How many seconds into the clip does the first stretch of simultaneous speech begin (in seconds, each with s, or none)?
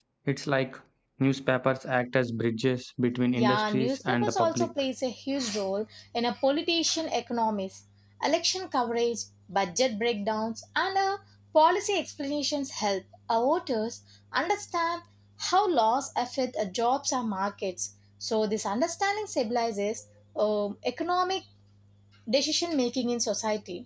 3.4 s